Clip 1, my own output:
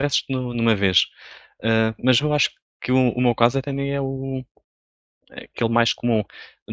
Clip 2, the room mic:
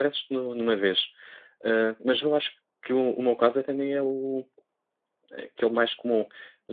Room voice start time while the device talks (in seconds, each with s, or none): none